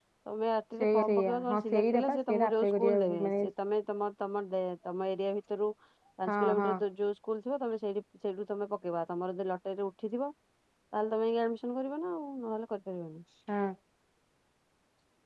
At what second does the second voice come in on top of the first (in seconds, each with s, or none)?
0.8 s